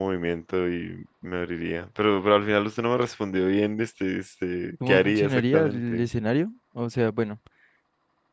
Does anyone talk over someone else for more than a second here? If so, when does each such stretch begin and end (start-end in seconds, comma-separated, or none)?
4.9-6.1